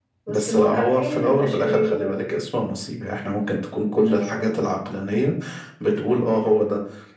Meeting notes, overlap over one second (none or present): present